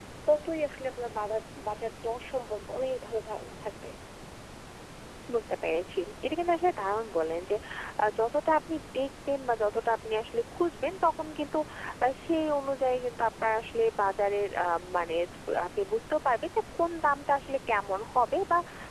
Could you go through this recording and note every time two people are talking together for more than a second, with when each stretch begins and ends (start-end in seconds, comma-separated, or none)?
none